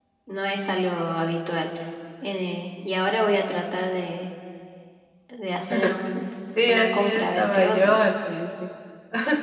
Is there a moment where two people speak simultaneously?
Yes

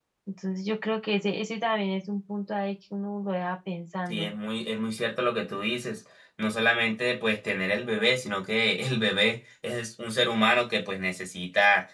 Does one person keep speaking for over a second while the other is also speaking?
No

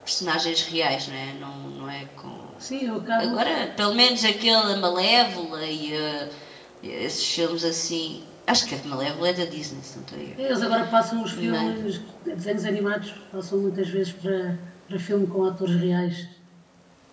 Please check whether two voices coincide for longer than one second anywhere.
No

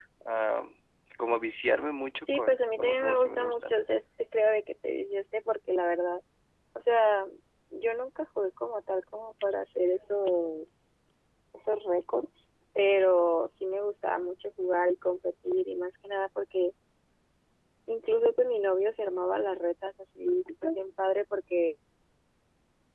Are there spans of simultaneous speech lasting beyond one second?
Yes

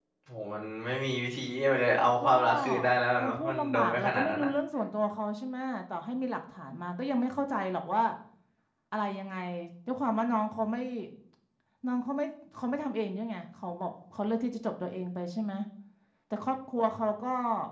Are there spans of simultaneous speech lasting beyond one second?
Yes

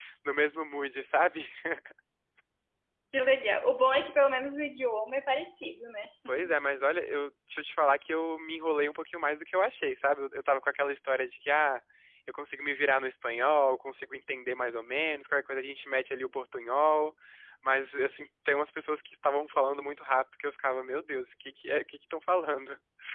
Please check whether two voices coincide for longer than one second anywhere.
No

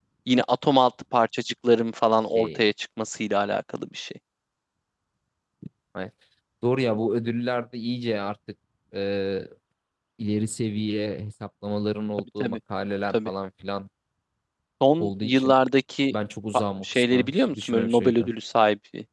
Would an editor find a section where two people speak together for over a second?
Yes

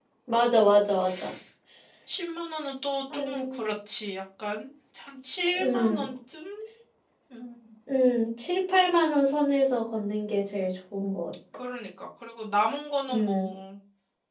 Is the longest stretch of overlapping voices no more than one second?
Yes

